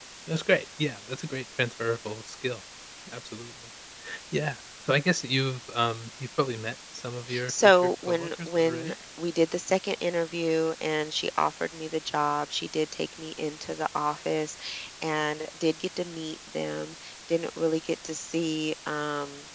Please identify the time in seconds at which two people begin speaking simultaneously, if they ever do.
7.3 s

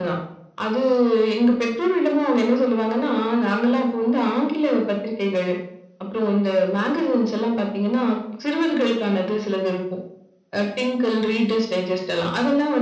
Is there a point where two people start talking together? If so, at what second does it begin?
none

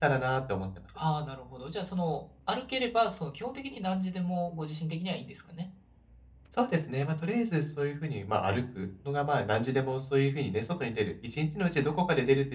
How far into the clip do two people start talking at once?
none

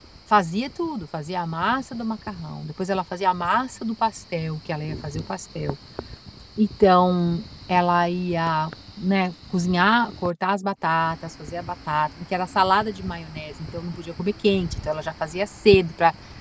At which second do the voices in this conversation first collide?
none

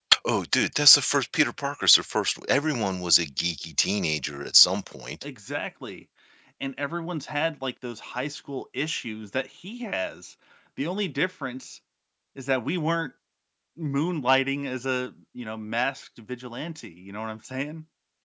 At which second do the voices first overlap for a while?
none

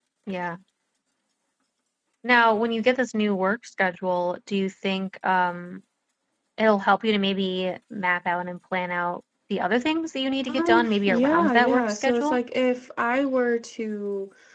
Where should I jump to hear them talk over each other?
10.5 s

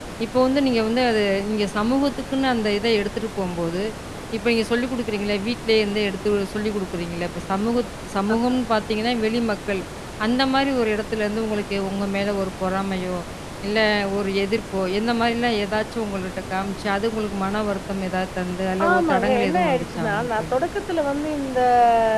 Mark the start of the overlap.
18.8 s

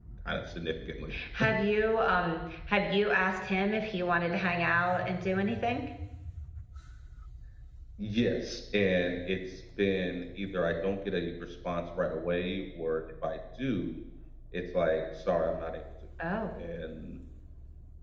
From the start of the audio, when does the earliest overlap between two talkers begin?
none

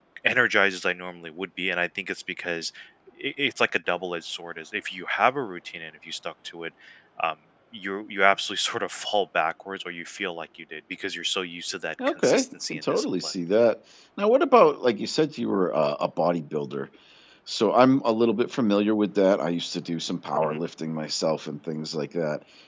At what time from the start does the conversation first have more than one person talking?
12.0 s

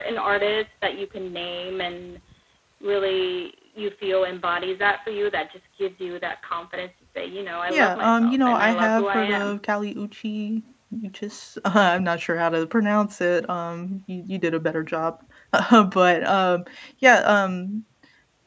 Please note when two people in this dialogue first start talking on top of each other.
7.7 s

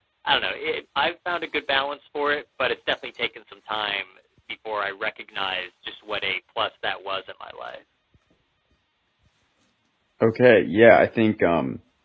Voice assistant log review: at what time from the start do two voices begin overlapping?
none

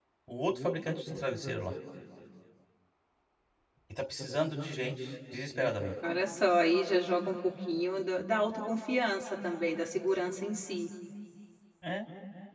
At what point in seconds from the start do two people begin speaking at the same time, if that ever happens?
none

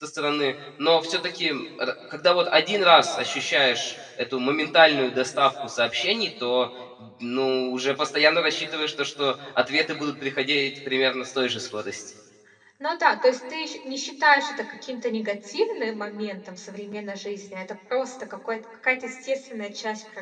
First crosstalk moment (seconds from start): none

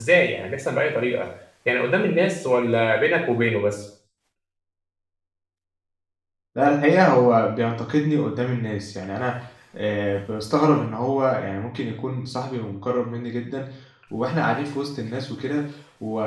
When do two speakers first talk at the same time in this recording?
none

